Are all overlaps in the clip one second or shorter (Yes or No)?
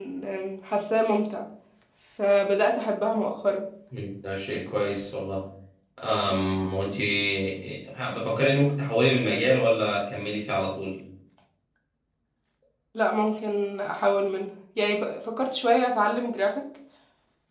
Yes